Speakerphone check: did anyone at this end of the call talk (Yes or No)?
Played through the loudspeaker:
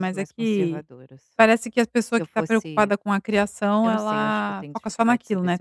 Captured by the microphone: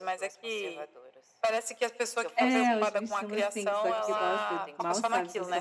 Yes